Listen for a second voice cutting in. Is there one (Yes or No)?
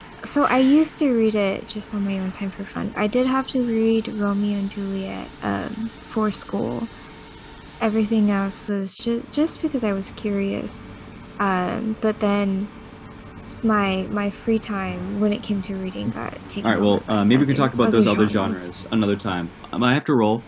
Yes